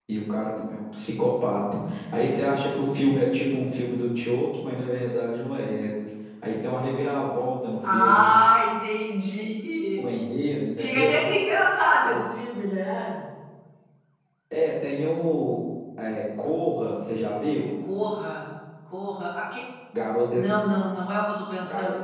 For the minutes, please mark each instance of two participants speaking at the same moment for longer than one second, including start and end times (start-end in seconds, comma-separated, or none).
none